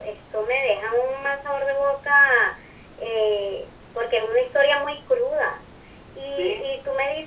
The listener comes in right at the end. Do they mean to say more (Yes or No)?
No